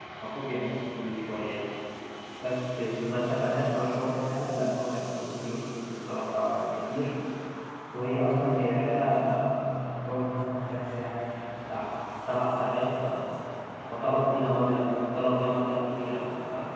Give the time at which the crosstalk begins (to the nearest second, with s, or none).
none